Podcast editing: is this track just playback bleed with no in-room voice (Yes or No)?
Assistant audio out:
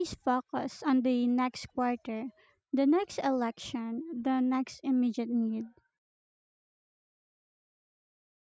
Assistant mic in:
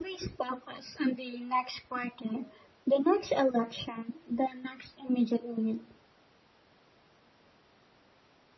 Yes